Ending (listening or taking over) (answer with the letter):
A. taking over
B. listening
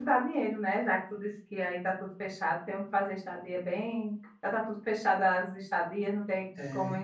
B